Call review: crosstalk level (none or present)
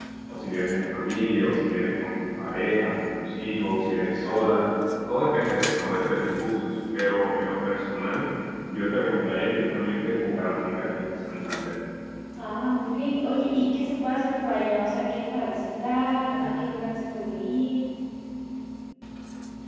none